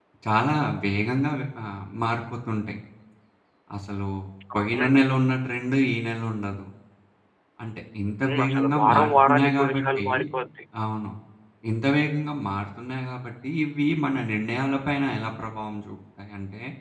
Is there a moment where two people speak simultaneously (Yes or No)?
Yes